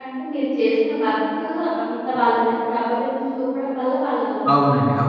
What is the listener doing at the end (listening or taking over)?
taking over